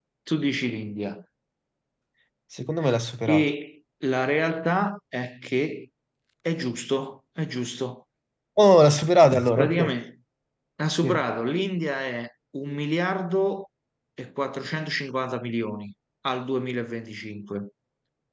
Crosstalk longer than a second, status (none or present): none